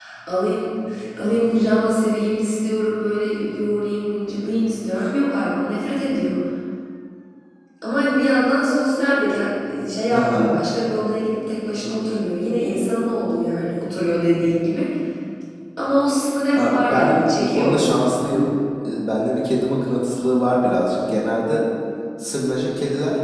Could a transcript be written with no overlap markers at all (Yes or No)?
No